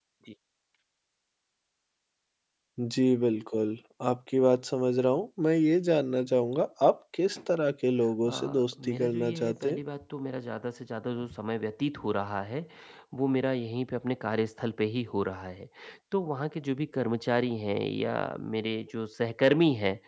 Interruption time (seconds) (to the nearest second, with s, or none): 8 s